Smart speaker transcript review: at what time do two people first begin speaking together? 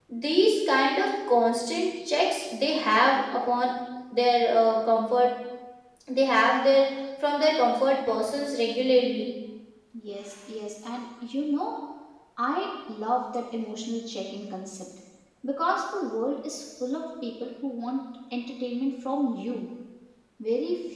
none

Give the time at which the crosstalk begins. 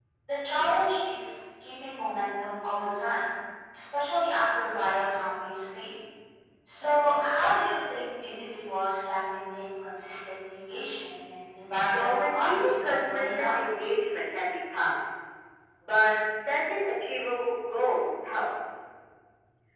11.9 s

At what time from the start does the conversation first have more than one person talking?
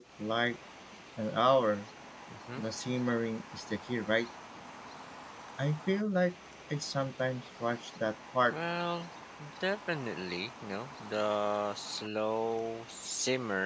none

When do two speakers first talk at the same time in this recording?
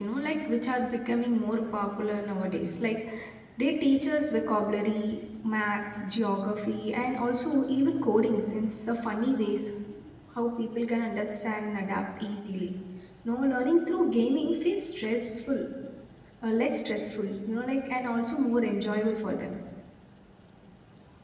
none

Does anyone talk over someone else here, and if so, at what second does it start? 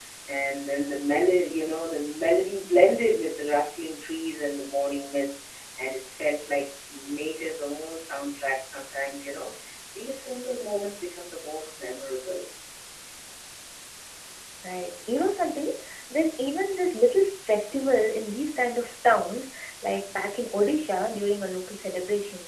none

